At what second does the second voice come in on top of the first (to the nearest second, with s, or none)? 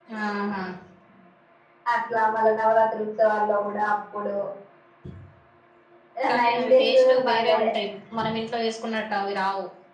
6 s